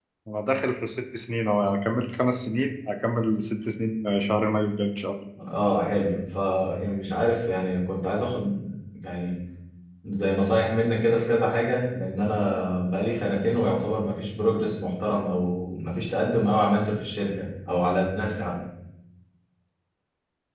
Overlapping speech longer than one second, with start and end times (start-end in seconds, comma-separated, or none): none